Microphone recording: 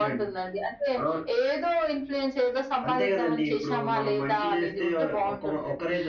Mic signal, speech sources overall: both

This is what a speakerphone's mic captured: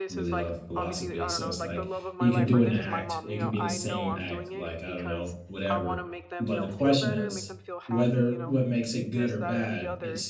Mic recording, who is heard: both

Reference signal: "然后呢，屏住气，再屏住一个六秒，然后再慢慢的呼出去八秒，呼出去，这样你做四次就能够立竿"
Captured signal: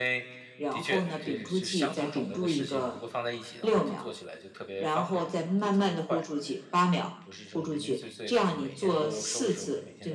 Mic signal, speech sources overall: both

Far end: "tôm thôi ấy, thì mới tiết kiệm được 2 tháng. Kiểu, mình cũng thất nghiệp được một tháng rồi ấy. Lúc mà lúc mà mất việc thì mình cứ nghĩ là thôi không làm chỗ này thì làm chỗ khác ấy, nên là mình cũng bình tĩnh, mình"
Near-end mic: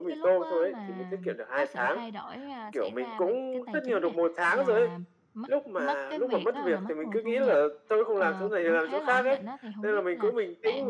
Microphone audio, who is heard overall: both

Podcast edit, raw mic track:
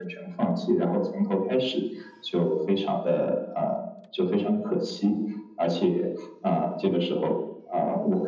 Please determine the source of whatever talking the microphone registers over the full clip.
echo only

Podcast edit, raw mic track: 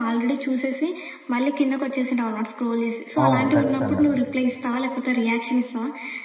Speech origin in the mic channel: both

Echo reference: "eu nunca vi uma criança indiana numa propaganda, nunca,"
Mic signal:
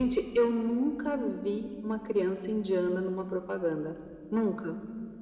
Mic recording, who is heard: echo only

